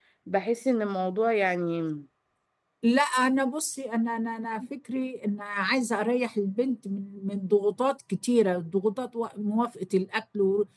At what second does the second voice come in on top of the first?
none

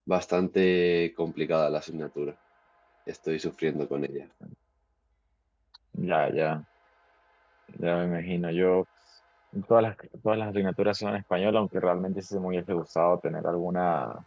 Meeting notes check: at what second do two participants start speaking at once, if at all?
none

